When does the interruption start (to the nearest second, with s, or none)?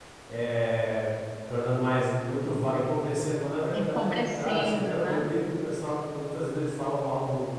4 s